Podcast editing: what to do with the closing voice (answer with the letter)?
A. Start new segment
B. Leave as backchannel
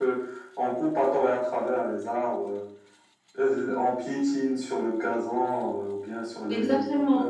A